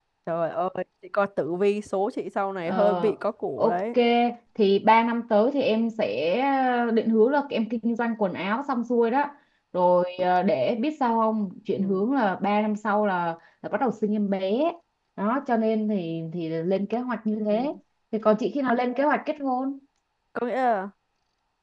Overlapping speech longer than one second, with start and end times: none

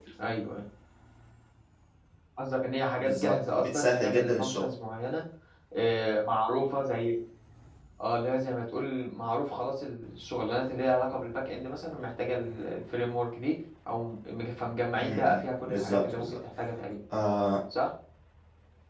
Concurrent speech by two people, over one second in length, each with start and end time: 3.0-4.7, 15.0-16.4

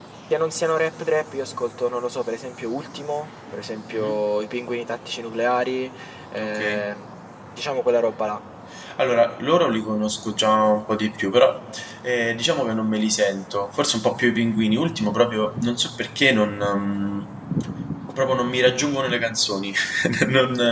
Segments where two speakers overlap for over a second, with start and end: none

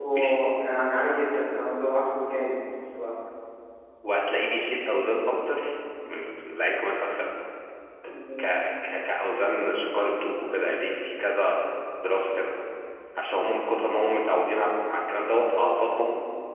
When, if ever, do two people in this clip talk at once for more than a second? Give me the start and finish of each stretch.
none

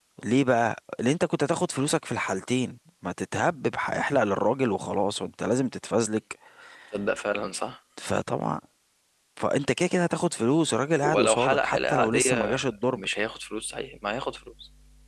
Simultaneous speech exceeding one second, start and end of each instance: 11.0-13.0

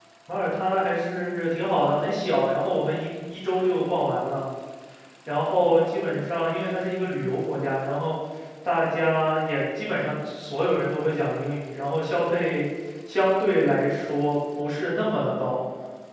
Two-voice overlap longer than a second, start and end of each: none

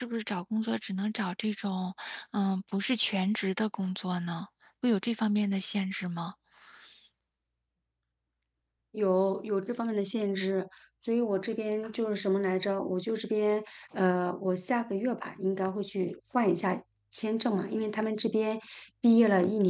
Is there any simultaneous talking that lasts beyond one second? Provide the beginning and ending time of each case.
none

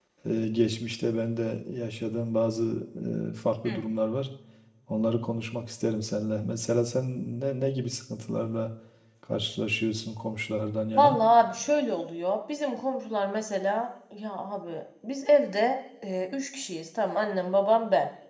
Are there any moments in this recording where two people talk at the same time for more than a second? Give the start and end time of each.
none

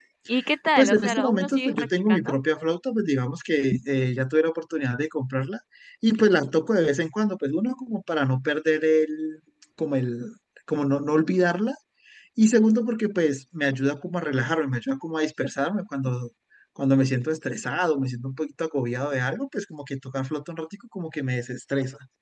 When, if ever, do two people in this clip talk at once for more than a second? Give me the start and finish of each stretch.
0.8-2.3

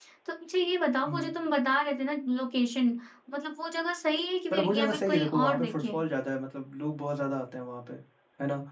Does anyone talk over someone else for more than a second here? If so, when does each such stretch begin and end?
4.5-6.0

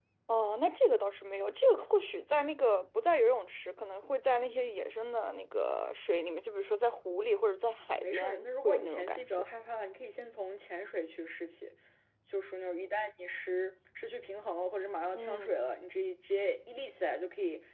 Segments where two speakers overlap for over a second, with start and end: 7.8-9.3

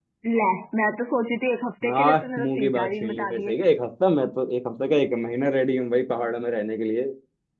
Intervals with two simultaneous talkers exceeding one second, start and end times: 1.8-3.5

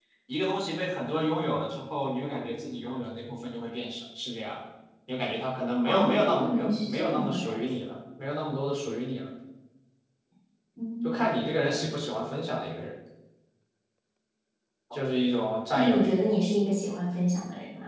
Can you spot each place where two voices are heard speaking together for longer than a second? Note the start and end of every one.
5.8-7.5

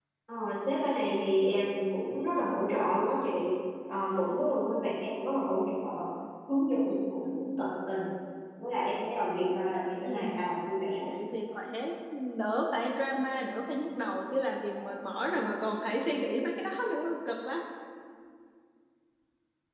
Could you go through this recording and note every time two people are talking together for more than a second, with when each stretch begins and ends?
none

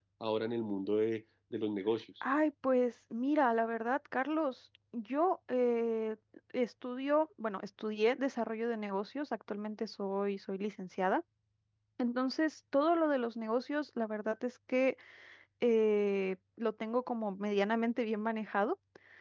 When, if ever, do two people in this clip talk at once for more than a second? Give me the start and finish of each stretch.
none

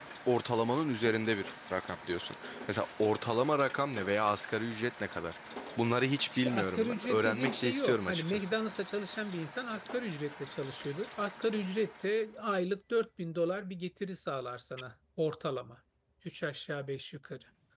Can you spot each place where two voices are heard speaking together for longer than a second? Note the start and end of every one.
6.4-8.5

